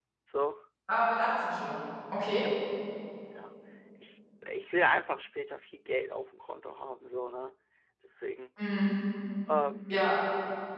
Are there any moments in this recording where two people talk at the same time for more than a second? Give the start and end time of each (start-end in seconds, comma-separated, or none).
none